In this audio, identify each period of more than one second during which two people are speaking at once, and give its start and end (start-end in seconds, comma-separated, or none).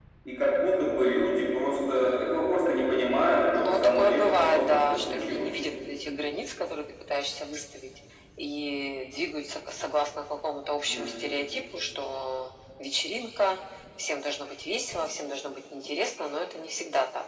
3.5-5.5